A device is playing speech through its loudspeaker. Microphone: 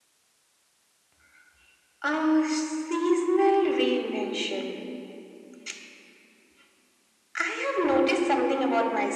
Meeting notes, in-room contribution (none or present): none